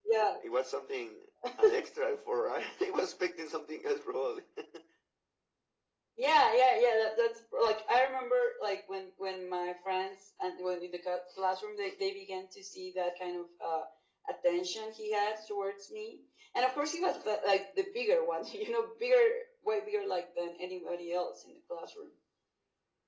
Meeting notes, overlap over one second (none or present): none